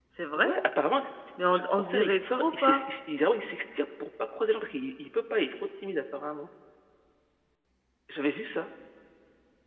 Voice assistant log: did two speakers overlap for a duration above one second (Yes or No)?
Yes